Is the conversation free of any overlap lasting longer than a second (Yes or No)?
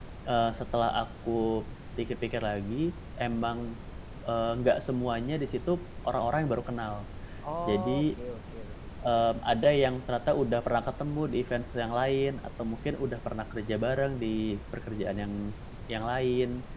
Yes